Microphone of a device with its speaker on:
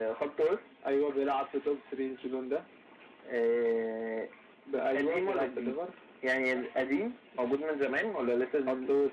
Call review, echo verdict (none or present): present